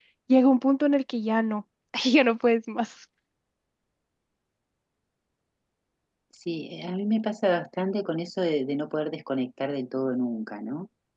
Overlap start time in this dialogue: none

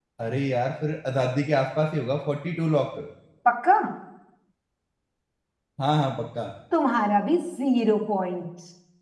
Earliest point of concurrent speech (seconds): none

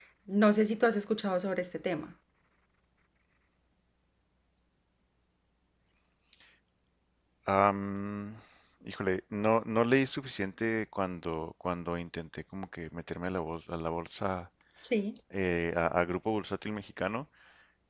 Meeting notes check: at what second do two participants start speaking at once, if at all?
none

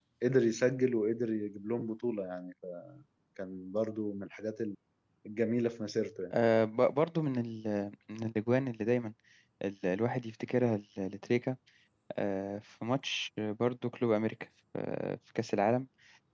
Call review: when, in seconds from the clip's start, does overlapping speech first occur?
none

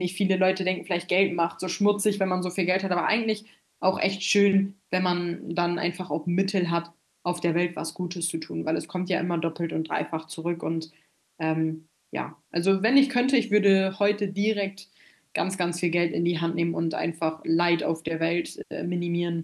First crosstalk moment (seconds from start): none

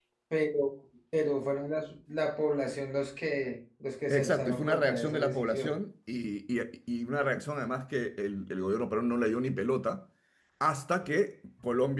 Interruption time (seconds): 4.1 s

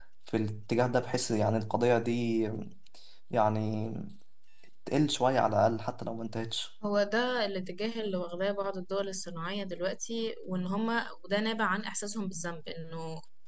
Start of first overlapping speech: none

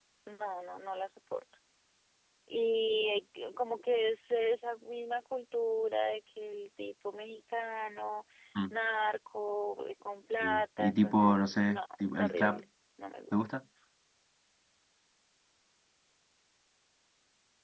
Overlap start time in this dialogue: 10.4 s

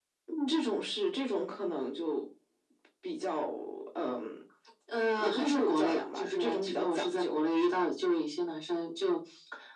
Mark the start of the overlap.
5.2 s

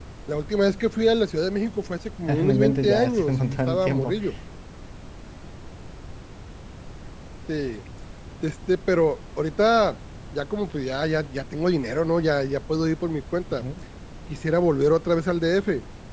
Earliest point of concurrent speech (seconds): 2.3 s

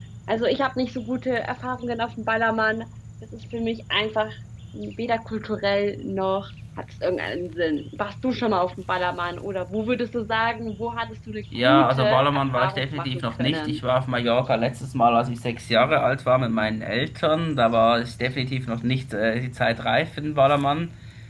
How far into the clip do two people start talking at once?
11.5 s

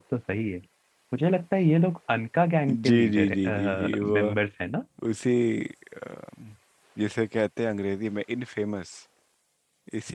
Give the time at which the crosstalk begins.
2.7 s

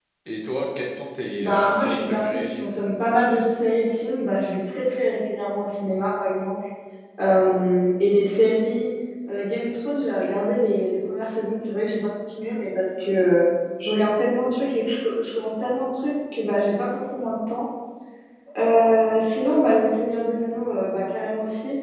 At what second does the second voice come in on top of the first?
1.4 s

